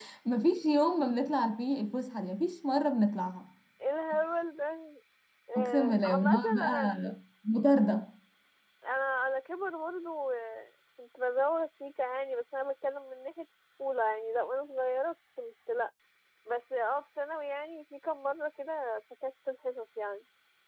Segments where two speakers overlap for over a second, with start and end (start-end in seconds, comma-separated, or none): 5.6-6.9